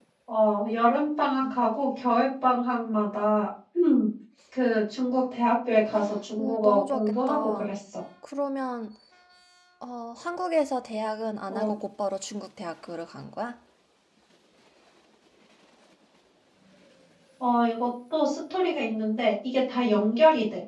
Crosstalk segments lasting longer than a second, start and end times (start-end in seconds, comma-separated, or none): 6.4-7.7